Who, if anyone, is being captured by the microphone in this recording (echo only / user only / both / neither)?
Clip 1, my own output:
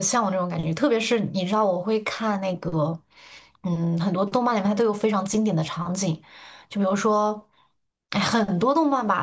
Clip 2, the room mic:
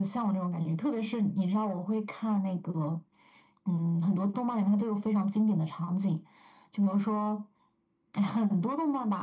echo only